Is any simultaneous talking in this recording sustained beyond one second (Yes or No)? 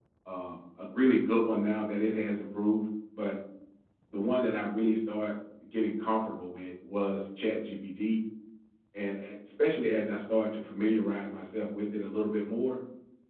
No